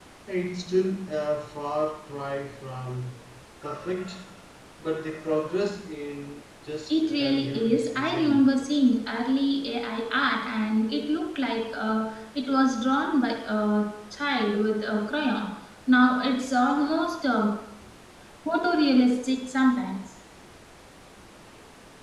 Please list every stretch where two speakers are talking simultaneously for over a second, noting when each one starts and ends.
6.9-8.4

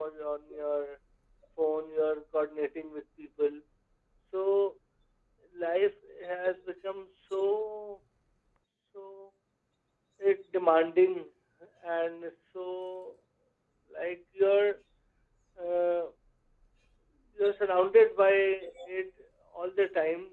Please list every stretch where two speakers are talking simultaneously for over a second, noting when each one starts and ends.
none

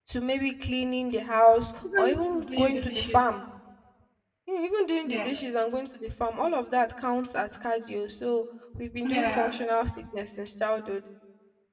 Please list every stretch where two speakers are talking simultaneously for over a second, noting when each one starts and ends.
2.0-3.2

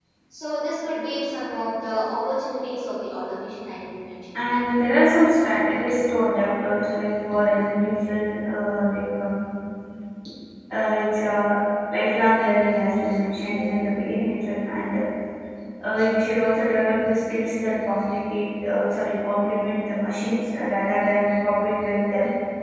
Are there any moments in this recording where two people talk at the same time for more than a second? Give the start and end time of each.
none

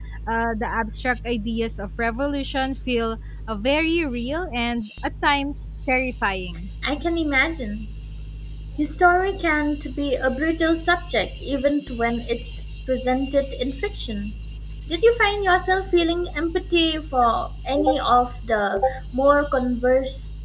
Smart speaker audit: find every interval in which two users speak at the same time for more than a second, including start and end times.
none

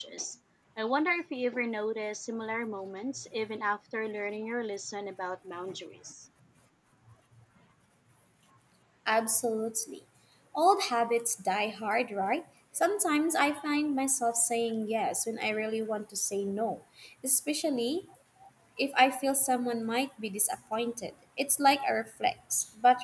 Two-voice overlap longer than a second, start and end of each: none

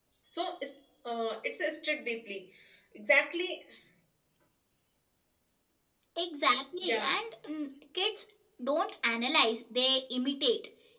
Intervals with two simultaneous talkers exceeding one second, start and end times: none

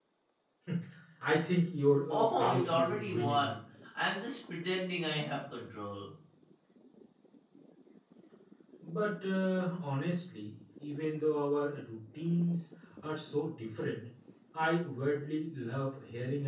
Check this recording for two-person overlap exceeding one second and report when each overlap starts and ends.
2.1-3.5

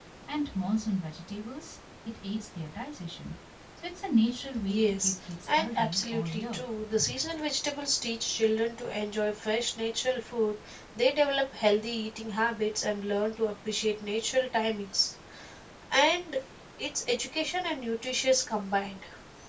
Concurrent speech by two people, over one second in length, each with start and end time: 4.6-6.6

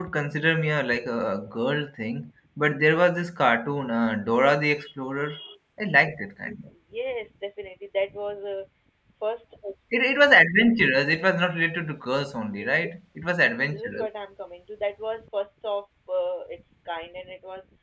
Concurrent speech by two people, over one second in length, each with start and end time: none

